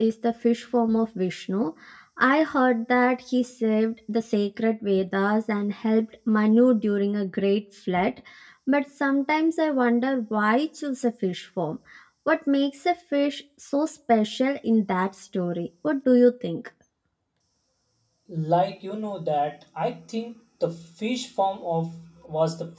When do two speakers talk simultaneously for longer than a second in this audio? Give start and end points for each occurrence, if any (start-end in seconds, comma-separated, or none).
none